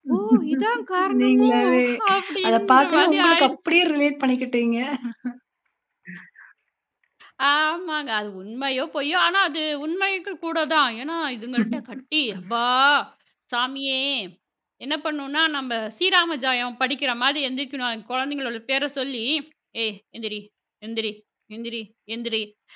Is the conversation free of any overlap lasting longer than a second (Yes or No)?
No